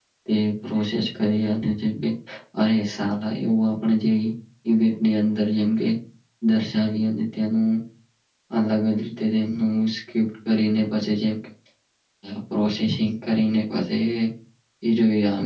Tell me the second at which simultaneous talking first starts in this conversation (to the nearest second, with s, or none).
none